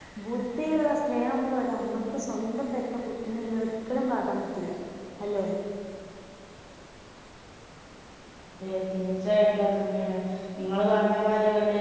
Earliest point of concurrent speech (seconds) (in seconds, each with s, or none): none